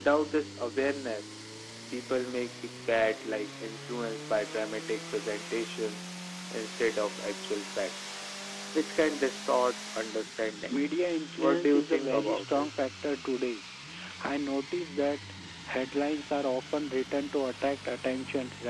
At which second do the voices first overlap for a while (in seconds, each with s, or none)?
11.4 s